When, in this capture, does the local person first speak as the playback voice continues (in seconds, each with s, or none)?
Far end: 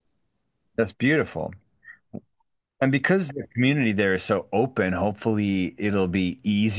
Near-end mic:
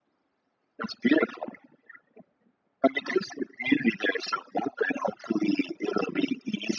none